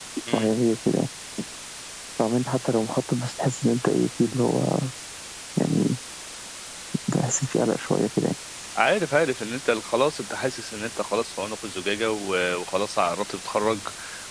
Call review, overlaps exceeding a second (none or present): none